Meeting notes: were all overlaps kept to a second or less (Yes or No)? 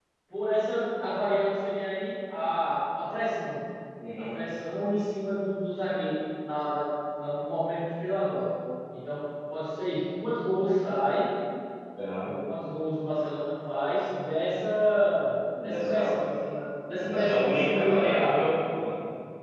No